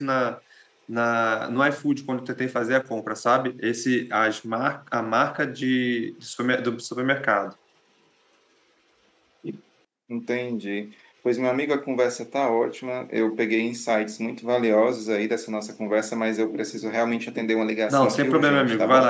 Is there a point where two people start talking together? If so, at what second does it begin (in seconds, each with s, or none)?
17.9 s